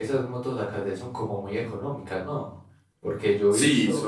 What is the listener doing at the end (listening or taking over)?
taking over